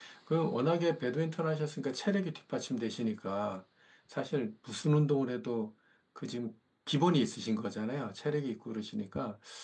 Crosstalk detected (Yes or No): No